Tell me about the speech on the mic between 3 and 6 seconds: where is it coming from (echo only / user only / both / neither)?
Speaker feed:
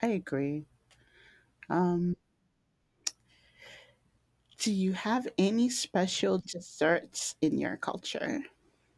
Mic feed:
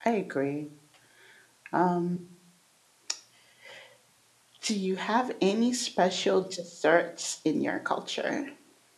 echo only